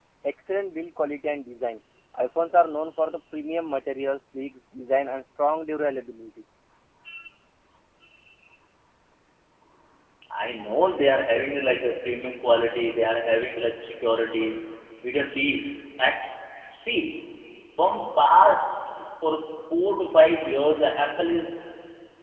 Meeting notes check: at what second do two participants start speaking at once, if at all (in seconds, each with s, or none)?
none